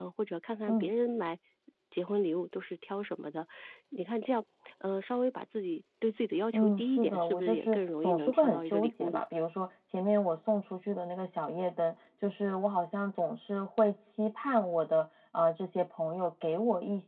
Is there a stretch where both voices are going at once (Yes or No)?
Yes